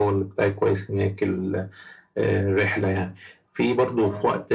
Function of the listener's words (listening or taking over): listening